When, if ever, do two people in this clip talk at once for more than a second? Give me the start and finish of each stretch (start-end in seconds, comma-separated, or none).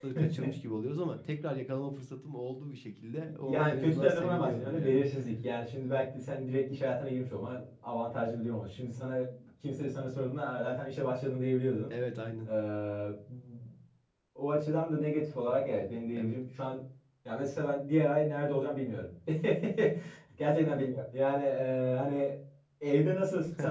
3.4-5.0